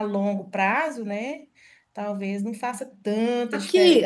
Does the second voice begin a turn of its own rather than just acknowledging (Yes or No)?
Yes